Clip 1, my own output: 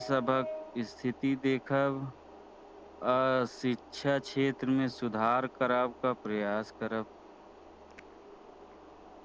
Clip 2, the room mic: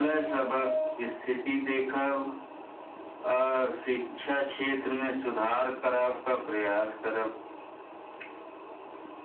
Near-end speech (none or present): none